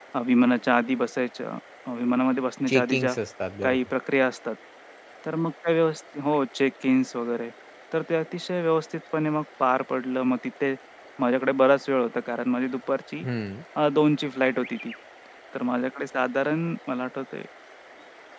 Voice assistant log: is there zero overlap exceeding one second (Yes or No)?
Yes